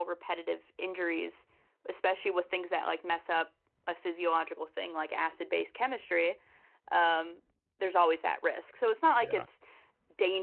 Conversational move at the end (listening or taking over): listening